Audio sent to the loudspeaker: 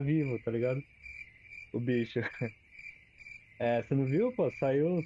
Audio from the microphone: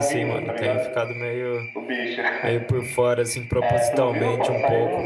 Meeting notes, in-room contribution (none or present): present